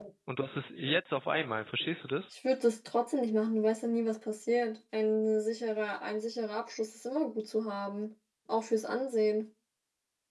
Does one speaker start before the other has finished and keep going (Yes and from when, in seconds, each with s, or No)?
No